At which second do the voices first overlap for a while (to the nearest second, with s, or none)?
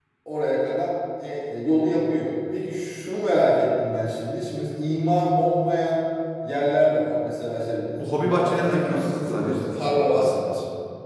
8 s